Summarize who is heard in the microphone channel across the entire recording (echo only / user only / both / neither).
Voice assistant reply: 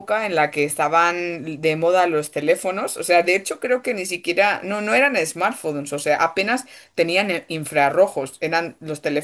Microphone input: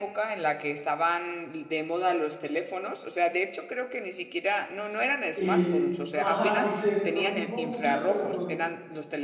both